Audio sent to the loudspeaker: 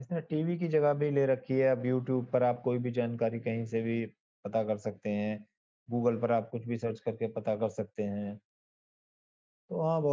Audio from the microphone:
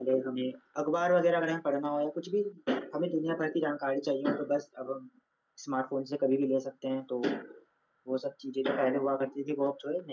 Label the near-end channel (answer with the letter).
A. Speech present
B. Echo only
A